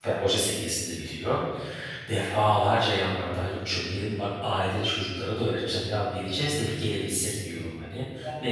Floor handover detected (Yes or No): No